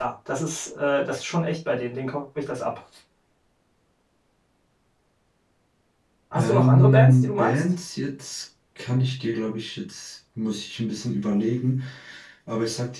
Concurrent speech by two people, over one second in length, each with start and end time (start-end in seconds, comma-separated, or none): 6.3-7.6